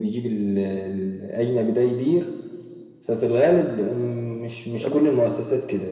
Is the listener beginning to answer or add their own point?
No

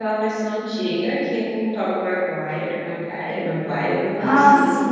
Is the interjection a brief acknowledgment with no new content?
No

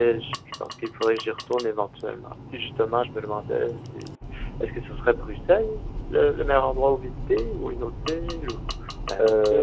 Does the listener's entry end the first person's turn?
Yes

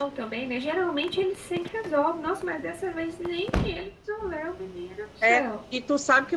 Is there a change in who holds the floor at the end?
Yes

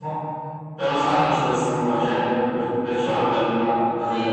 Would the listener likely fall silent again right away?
No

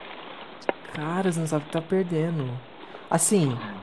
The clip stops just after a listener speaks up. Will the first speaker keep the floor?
Yes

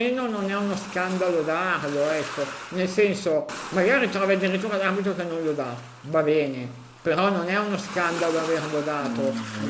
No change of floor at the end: No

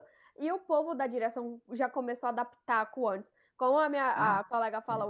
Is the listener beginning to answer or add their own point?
No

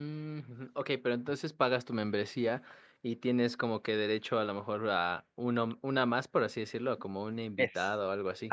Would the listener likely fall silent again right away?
No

